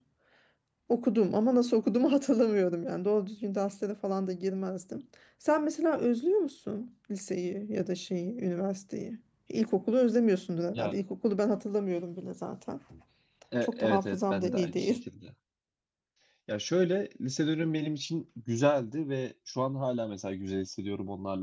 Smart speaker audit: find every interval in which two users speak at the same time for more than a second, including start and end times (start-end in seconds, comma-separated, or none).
13.6-15.0